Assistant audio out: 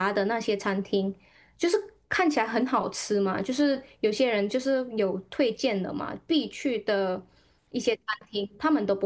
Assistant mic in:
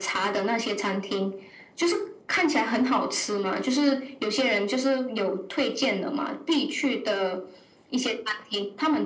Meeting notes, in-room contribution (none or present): none